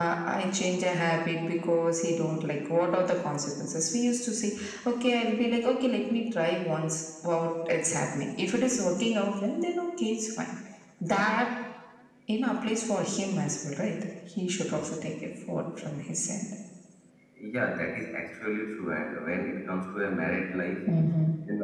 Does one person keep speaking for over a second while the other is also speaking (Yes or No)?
No